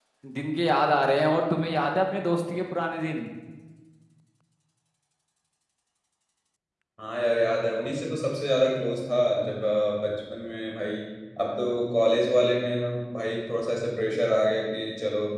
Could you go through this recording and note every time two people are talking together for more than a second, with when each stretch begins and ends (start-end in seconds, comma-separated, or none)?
none